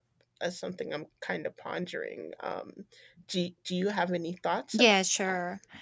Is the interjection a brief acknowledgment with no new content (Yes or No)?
No